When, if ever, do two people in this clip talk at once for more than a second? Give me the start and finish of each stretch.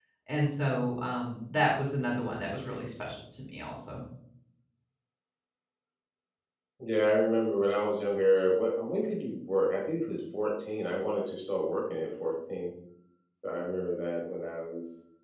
none

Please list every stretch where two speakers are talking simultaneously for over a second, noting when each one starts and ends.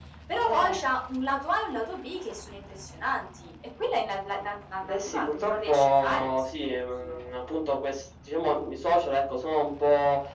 4.9-7.2

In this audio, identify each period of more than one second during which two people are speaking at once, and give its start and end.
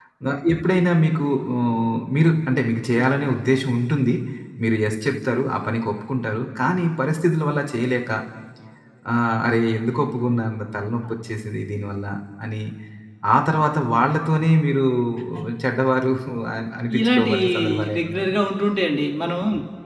17.0-18.3

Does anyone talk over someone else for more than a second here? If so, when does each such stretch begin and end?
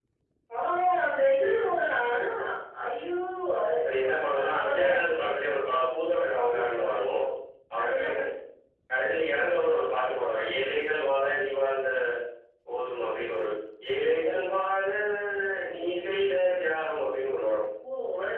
3.8-5.1

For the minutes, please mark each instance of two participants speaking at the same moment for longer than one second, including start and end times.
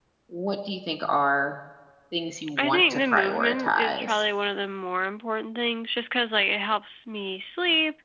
2.6-4.2

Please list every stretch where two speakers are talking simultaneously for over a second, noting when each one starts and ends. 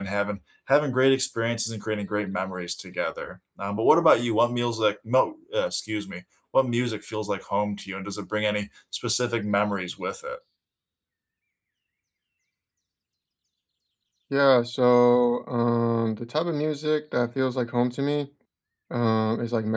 none

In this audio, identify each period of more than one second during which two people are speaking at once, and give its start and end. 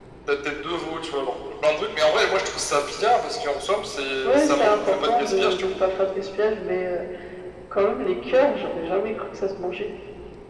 4.2-5.7

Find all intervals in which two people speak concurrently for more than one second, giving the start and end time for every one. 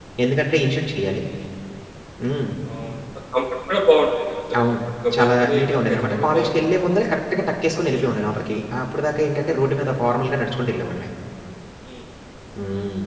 5.1-6.5

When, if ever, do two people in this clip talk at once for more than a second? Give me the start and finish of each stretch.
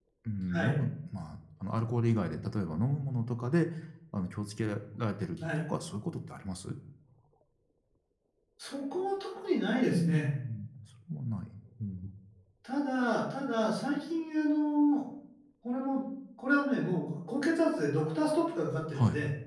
none

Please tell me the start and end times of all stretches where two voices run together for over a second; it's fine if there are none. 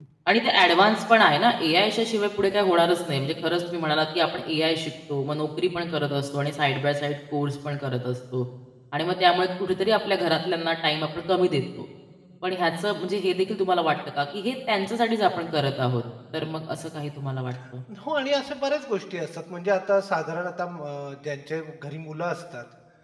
none

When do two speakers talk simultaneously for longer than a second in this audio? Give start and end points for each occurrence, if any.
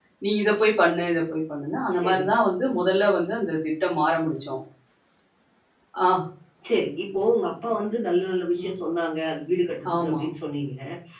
none

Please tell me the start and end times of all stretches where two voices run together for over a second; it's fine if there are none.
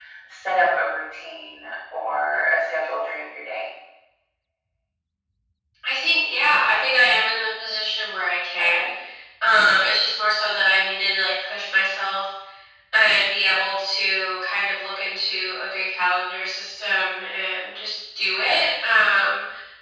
none

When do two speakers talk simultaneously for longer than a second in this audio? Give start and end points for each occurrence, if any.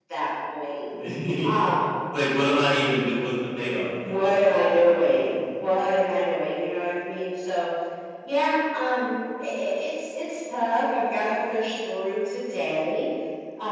4.0-5.7

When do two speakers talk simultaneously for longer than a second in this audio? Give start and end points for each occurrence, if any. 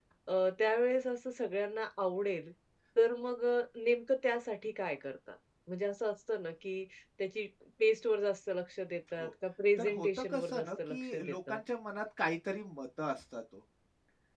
9.8-11.6

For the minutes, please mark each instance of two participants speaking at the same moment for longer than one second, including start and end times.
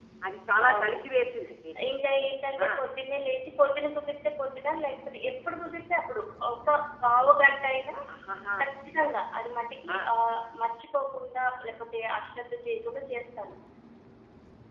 none

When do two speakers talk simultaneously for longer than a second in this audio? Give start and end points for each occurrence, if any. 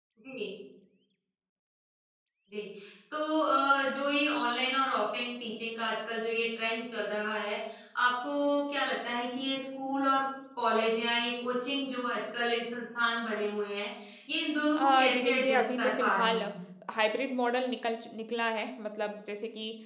14.7-16.4

